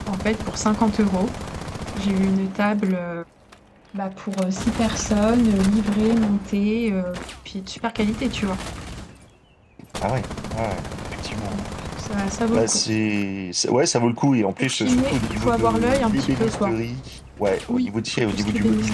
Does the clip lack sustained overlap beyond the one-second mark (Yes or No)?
No